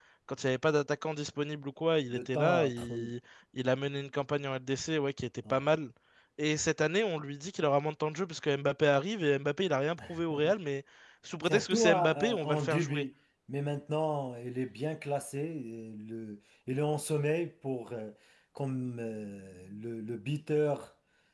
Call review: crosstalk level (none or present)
present